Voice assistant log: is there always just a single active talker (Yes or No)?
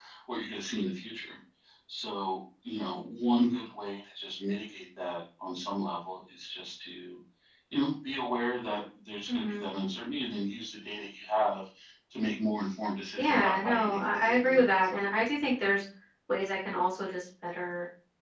No